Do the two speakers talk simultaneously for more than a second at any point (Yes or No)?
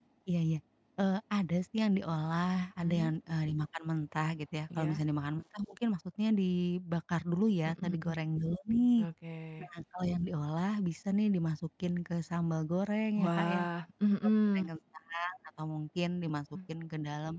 No